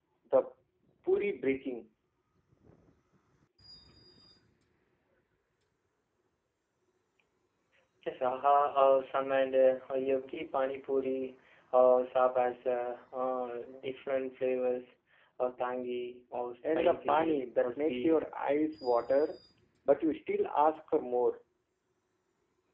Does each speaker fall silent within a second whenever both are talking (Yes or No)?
No